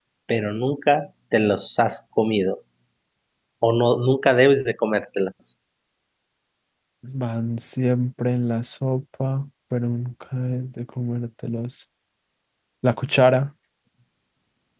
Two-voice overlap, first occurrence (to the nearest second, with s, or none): none